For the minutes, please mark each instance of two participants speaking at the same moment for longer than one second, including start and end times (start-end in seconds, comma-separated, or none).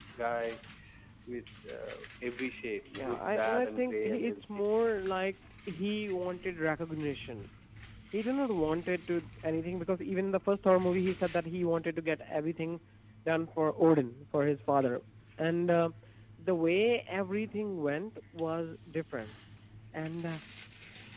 3.0-4.4